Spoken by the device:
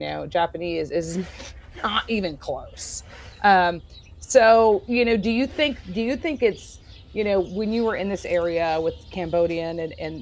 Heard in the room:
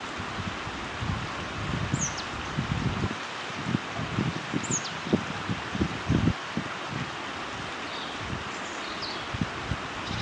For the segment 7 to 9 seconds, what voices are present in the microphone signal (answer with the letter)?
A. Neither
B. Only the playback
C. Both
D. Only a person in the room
A